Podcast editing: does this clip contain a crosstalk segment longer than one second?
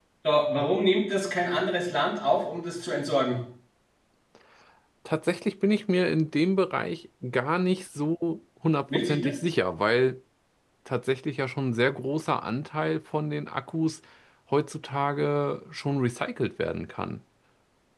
No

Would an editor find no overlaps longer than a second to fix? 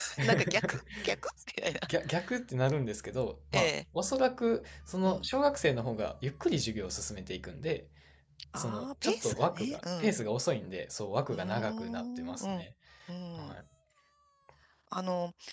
No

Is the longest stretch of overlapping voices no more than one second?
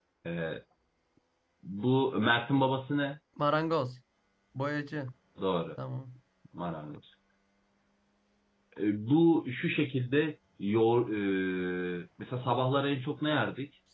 Yes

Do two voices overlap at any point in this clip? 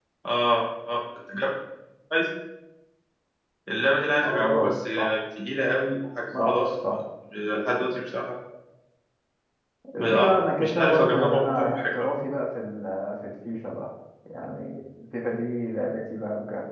Yes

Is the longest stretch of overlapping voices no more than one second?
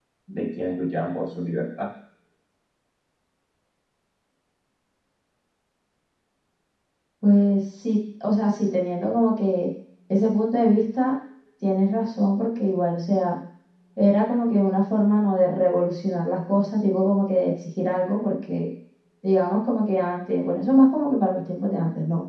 Yes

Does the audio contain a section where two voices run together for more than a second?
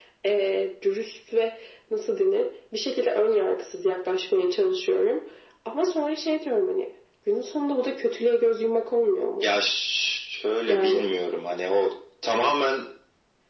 No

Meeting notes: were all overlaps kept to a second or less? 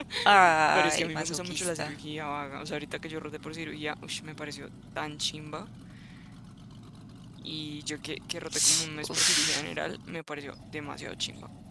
No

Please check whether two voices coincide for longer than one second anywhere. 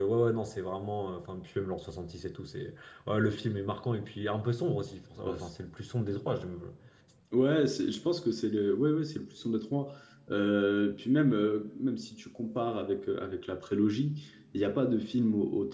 No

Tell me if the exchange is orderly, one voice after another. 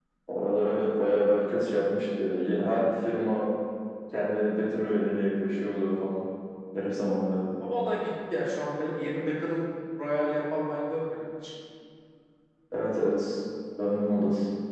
Yes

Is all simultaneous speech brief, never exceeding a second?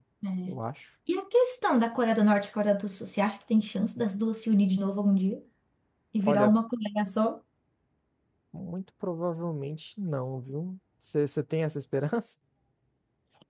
Yes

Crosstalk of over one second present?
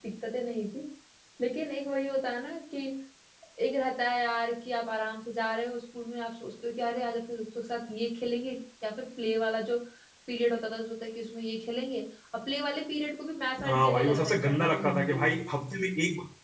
Yes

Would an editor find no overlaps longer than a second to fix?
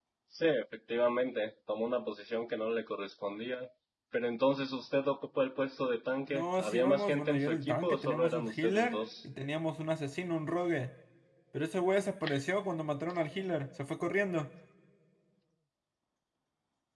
No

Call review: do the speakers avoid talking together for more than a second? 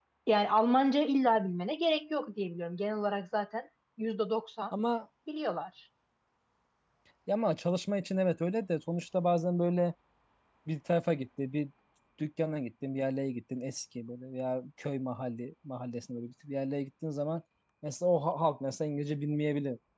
Yes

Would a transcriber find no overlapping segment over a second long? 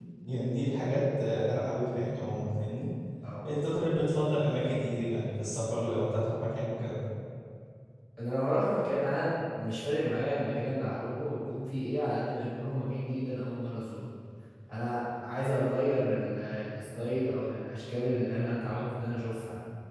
Yes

